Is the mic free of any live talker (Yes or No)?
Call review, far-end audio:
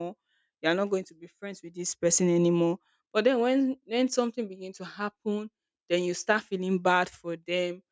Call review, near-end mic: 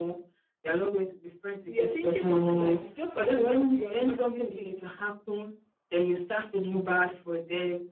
No